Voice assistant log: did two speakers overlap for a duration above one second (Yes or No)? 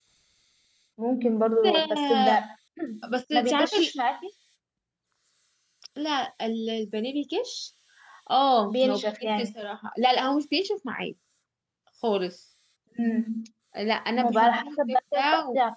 Yes